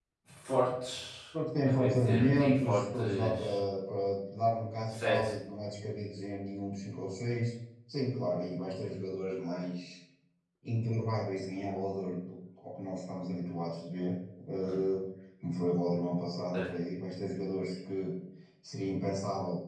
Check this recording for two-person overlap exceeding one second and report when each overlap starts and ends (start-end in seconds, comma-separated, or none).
1.6-3.6